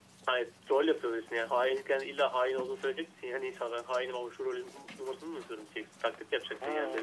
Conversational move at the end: taking over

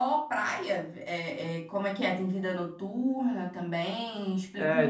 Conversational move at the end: taking over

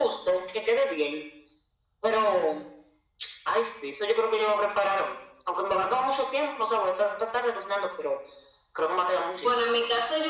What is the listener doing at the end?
taking over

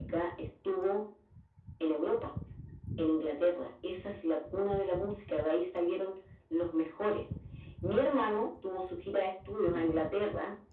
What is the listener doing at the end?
listening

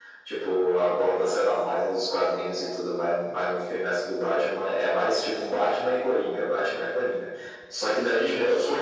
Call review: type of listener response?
listening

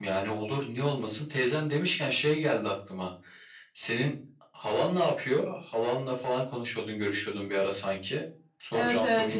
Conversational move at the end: taking over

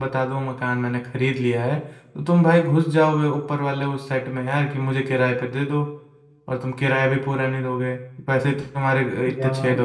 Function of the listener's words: taking over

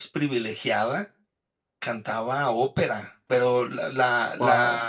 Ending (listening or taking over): listening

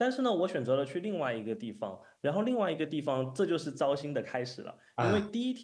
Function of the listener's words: listening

